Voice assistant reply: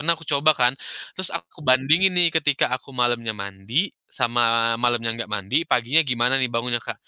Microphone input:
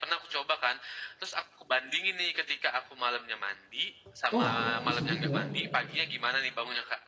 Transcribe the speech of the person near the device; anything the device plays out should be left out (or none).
Wah, bisa gitu ya?